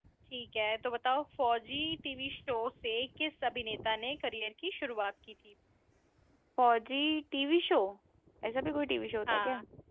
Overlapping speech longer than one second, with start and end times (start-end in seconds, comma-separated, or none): none